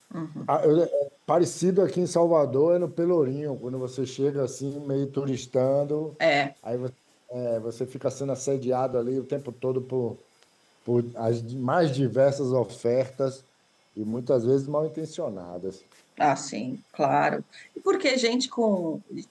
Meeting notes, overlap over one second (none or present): none